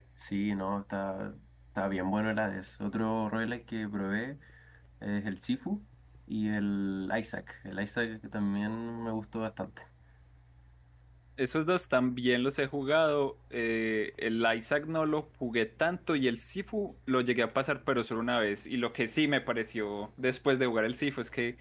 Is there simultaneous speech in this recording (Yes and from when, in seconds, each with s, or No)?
No